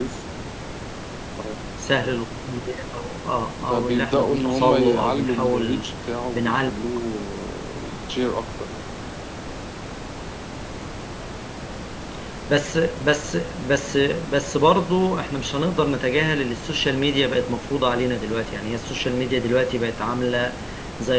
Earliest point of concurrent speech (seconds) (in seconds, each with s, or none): 3.7 s